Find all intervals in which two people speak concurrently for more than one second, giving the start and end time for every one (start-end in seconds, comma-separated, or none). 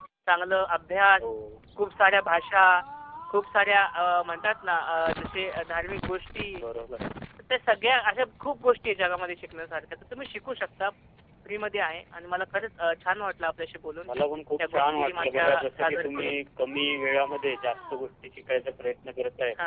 14.6-16.4